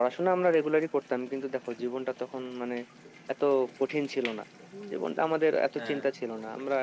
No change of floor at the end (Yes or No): Yes